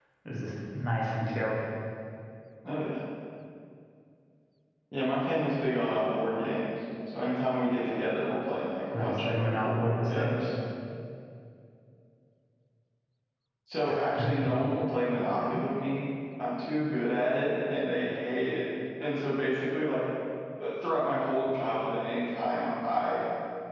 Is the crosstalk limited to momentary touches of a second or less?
No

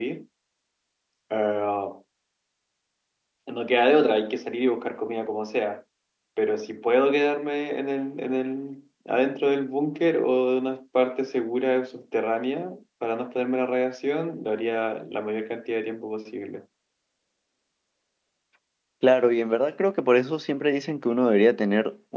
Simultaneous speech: No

